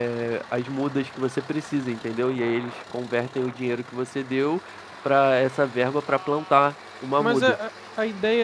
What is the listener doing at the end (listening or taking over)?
taking over